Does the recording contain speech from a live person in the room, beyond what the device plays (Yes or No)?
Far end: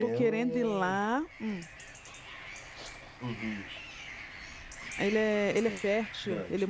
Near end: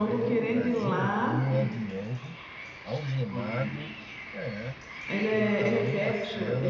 Yes